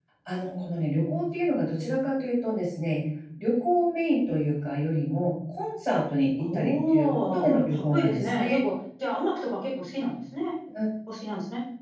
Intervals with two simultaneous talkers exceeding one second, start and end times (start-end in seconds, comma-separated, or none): 6.4-8.6